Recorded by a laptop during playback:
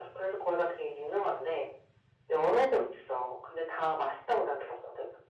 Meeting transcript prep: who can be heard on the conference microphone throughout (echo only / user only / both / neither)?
echo only